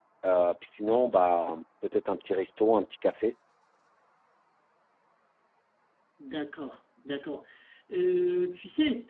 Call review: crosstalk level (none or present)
none